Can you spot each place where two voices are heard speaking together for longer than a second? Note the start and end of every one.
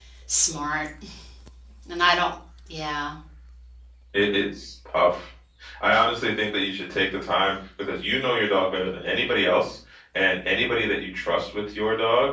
none

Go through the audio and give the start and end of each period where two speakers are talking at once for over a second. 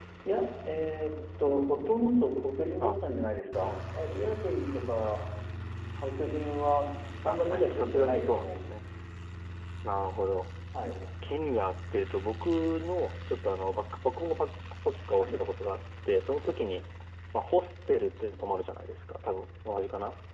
7.2-8.6

